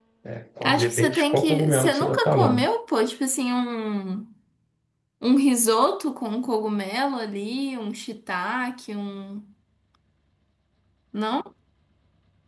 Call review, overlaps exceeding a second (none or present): present